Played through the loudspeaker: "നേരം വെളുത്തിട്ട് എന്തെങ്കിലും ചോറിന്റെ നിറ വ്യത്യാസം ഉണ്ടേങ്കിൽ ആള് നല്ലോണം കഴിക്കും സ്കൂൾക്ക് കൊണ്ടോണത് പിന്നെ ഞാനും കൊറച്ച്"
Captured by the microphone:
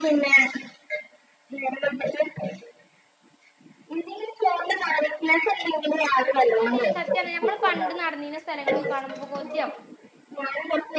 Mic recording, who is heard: both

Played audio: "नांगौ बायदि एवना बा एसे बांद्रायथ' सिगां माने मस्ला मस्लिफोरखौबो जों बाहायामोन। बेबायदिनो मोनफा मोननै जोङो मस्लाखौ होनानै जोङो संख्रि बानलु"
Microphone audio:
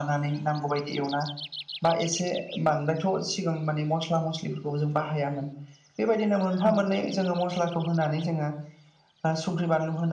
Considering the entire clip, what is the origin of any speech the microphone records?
echo only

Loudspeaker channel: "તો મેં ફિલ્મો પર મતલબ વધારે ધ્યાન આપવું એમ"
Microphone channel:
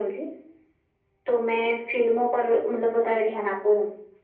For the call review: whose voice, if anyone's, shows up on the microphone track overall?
echo only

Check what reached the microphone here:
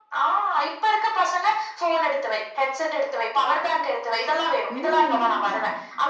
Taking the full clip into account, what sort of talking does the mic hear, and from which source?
both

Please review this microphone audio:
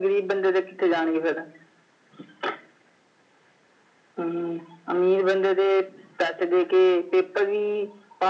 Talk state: echo only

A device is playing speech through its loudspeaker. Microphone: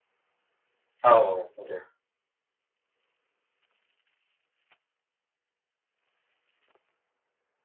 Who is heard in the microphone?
user only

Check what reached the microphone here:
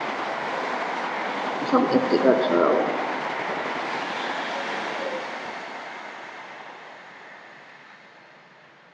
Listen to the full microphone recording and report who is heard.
user only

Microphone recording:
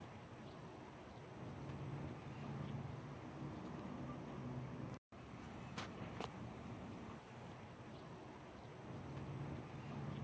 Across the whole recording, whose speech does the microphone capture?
neither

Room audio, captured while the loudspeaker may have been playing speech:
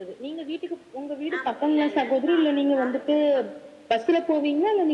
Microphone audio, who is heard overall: both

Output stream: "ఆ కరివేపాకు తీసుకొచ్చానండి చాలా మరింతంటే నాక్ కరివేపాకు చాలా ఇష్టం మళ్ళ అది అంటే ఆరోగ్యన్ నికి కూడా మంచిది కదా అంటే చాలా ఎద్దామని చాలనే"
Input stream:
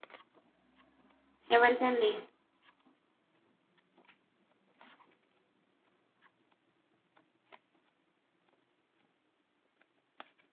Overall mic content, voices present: user only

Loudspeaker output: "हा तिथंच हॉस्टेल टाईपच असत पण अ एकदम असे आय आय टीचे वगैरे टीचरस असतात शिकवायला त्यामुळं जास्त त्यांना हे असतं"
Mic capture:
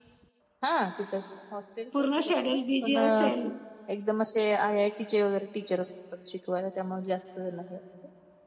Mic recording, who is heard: both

